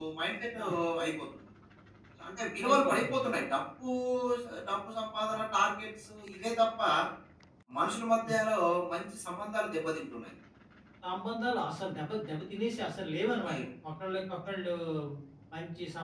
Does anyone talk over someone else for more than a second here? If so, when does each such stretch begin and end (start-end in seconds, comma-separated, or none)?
none